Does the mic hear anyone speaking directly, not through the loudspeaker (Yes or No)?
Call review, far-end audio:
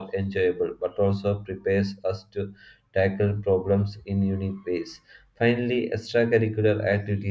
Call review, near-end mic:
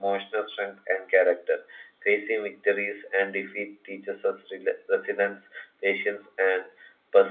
Yes